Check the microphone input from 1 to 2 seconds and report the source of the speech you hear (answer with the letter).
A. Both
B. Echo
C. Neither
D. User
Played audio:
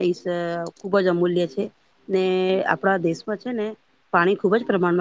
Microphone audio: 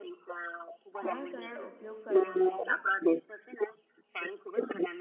A